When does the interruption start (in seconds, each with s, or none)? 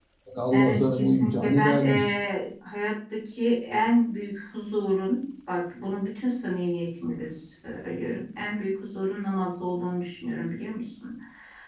0.5 s